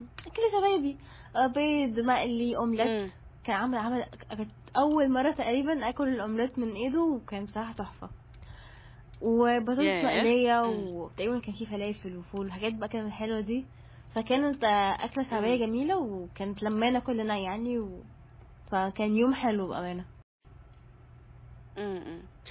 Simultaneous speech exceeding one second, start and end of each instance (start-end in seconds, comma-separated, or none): none